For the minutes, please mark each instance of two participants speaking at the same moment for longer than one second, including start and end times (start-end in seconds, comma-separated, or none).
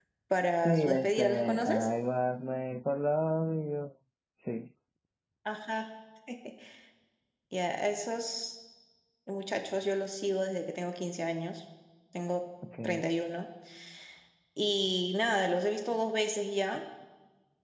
0.7-1.9